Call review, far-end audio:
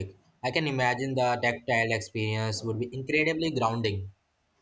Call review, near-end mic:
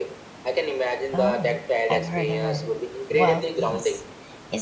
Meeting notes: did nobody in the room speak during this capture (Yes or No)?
No